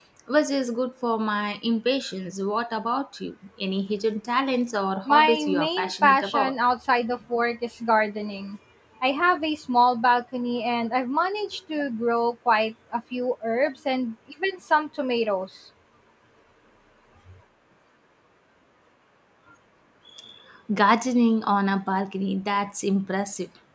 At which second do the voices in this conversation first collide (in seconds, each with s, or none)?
5.1 s